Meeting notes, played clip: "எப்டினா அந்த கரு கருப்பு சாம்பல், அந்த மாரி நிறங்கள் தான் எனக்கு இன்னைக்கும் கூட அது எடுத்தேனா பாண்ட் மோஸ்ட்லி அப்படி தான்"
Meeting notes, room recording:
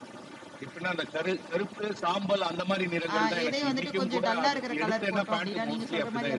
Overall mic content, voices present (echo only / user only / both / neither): both